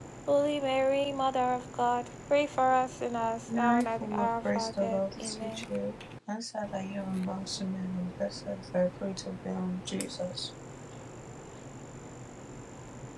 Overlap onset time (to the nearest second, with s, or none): 3 s